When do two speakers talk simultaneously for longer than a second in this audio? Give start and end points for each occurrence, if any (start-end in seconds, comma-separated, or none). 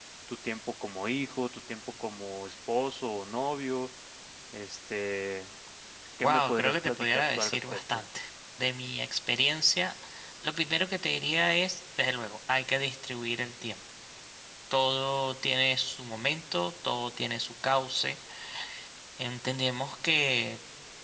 6.2-8.0